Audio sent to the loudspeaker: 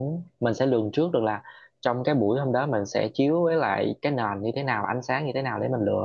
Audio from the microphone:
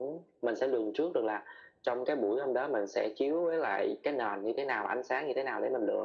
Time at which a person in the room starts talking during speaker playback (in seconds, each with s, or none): none